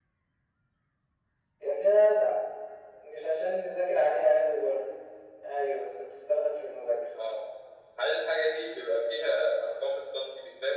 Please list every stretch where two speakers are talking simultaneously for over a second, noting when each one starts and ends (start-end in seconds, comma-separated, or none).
none